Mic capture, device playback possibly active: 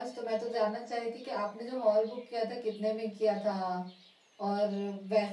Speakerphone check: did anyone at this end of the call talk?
No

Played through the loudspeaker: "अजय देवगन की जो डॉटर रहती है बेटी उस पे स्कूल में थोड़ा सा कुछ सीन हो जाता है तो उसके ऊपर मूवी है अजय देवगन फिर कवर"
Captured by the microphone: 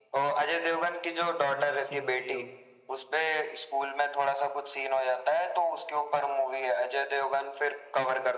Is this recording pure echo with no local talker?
No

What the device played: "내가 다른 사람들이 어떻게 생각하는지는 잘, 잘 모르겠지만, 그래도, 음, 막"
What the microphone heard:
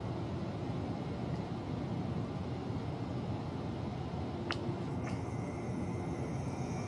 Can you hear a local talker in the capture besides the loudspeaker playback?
No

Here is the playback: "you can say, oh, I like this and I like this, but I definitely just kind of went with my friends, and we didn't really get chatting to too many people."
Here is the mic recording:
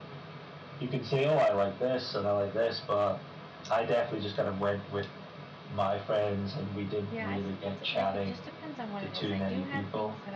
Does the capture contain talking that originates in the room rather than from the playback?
Yes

